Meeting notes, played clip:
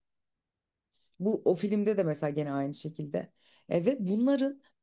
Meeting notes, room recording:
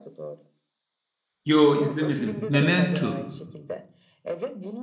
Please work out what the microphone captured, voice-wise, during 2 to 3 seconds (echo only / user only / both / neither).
both